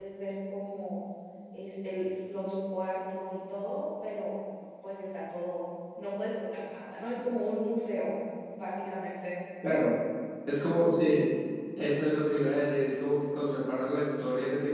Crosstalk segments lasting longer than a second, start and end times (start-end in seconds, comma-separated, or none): none